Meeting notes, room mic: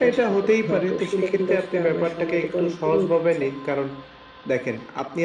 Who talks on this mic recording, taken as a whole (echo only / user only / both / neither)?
echo only